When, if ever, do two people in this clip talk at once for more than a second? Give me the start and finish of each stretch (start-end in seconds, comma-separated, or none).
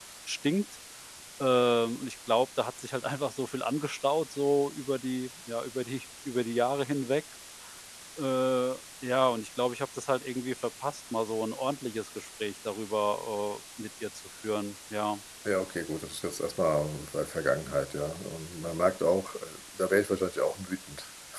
none